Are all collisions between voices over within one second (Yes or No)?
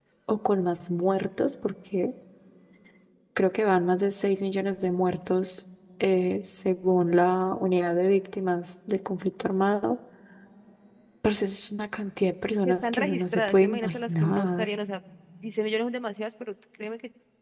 No